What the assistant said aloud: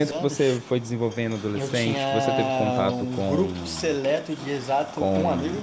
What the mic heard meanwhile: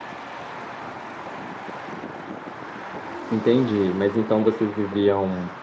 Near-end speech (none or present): present